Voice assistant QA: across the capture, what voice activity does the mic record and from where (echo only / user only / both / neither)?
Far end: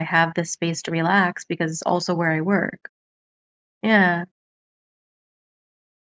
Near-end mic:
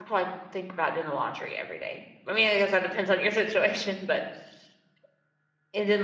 user only